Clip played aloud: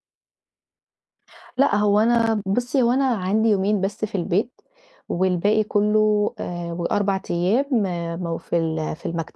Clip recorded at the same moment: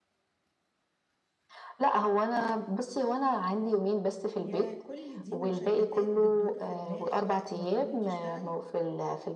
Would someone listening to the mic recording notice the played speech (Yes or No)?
Yes